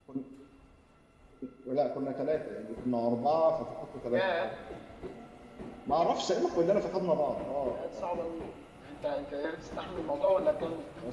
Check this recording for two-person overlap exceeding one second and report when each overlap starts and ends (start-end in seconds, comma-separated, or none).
none